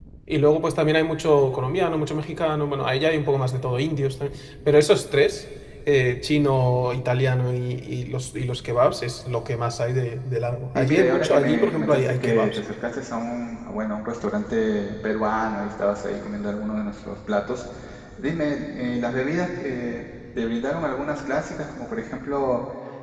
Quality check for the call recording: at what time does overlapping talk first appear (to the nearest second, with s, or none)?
11 s